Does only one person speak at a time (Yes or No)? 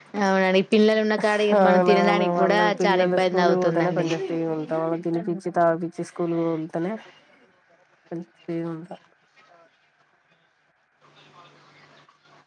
No